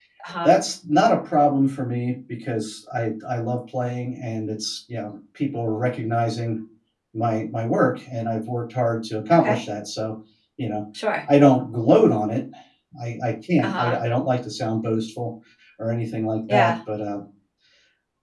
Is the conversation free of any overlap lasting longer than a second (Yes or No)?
Yes